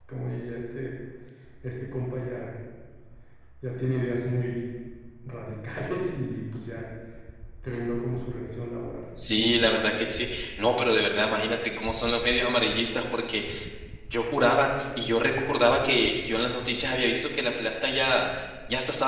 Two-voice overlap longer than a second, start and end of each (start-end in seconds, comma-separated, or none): none